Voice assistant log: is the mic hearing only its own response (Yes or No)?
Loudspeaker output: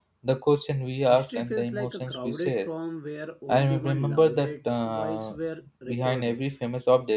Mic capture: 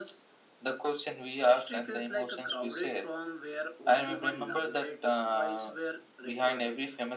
Yes